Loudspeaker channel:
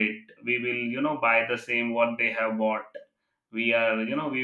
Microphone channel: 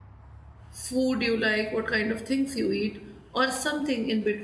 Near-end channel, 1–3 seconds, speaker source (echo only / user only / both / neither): user only